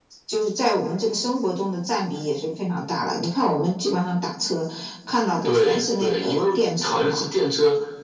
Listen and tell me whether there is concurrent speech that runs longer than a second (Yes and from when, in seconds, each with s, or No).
Yes, from 5.4 s